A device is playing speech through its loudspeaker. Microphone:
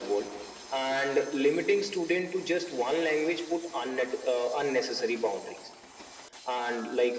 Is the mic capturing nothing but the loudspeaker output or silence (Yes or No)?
Yes